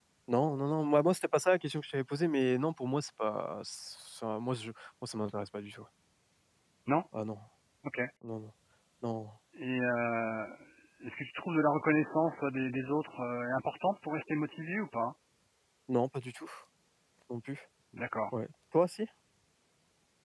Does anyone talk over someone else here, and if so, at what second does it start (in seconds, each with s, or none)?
none